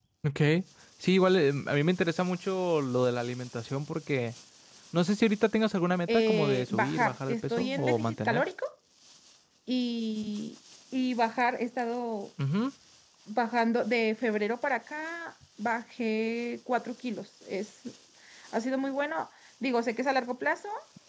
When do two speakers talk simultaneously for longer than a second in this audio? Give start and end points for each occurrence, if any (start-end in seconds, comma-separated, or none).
6.1-8.4